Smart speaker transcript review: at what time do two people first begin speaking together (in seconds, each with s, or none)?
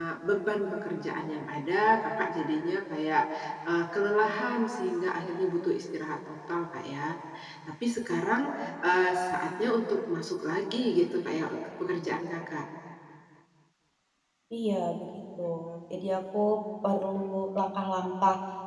none